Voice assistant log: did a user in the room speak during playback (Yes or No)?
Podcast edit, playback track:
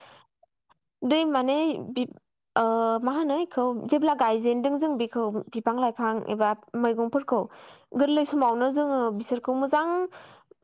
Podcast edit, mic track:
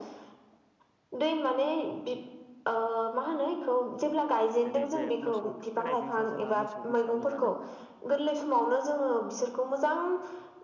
Yes